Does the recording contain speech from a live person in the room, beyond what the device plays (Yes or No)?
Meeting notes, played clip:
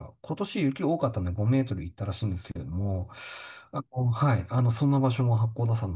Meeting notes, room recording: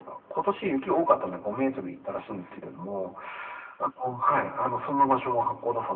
No